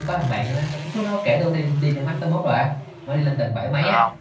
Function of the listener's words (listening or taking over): listening